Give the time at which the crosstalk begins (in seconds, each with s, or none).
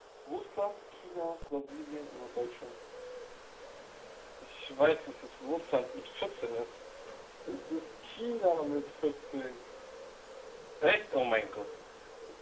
none